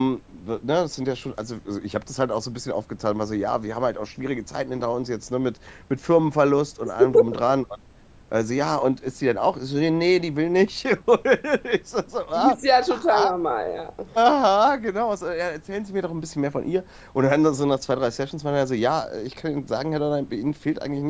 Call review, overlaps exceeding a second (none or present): none